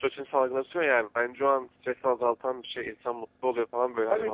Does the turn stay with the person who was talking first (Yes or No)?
No